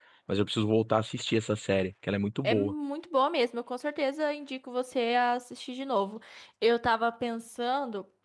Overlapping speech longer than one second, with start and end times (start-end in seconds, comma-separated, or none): none